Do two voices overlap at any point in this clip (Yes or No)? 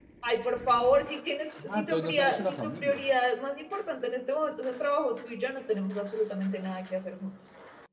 Yes